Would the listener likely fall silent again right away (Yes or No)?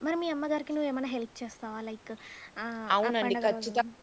No